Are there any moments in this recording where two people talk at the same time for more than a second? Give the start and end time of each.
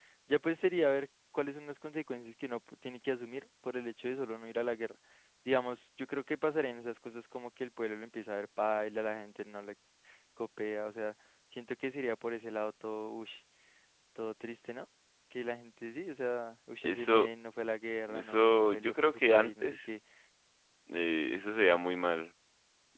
18.1-19.8

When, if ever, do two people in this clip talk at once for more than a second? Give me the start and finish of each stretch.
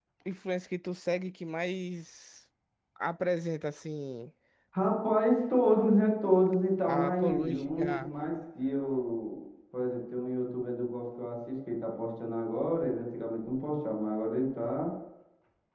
6.9-8.1

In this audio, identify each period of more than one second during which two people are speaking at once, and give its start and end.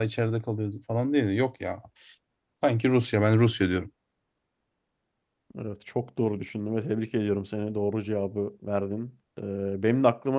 none

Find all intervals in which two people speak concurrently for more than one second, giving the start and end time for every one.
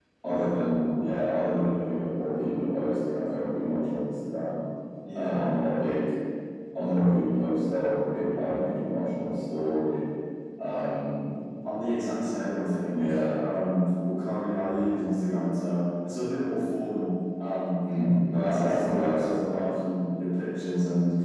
18.3-19.8

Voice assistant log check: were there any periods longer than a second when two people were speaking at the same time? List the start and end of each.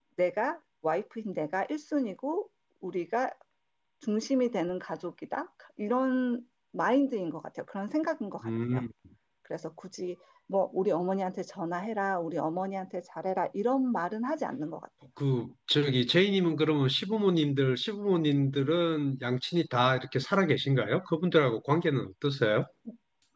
none

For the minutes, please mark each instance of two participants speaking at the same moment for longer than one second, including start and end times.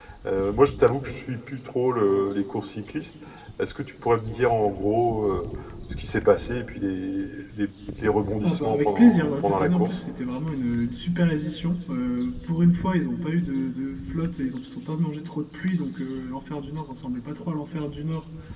8.4-10.0

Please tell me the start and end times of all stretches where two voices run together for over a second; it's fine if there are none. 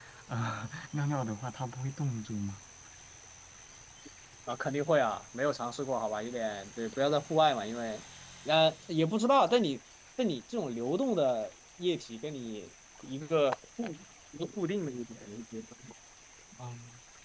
none

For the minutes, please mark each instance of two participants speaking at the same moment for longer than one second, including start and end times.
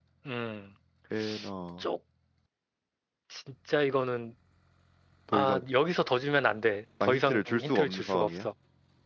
7.0-8.5

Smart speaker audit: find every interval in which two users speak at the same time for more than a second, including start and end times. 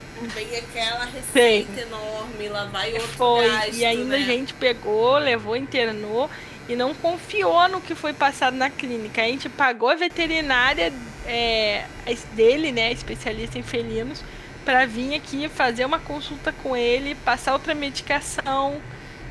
3.0-4.4

